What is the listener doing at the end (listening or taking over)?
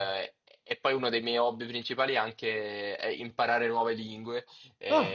listening